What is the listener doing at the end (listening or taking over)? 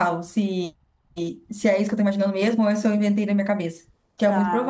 taking over